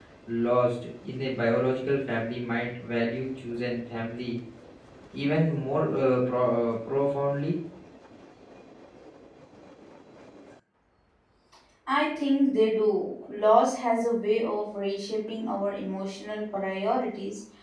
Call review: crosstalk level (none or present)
none